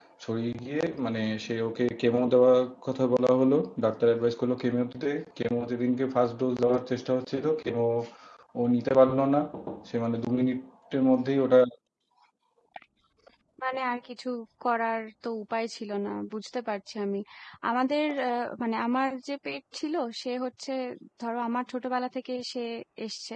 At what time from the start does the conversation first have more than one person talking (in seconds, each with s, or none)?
none